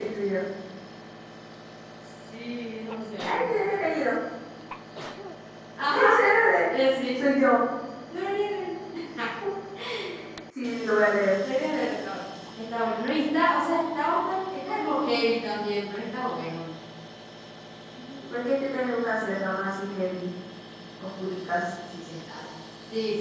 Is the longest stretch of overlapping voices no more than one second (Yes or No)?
Yes